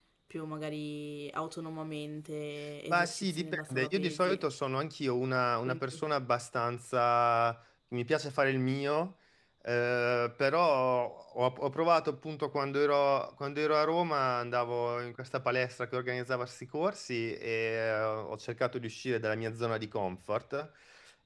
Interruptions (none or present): present